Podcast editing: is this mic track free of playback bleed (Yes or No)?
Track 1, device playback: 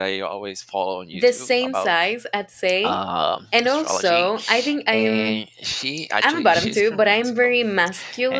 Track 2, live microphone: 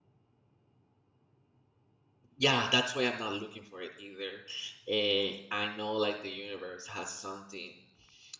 Yes